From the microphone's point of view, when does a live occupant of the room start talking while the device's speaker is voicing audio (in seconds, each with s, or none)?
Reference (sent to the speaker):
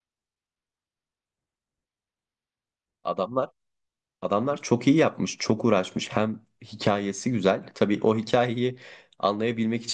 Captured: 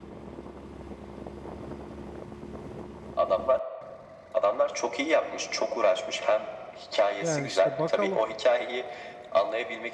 7.2 s